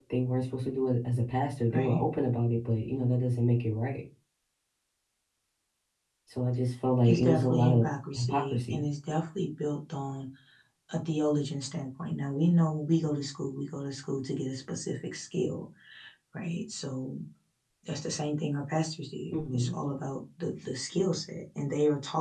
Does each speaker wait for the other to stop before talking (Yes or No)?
No